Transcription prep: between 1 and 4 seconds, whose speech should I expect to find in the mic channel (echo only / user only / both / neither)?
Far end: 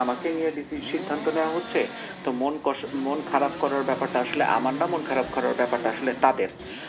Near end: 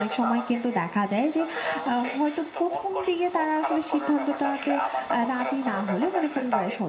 both